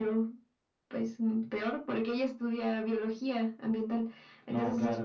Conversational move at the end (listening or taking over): listening